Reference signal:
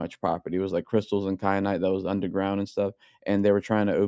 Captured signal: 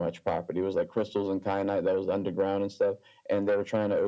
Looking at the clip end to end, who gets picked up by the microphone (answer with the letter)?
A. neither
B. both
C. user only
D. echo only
D